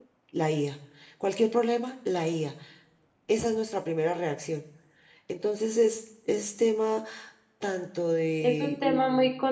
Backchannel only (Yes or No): No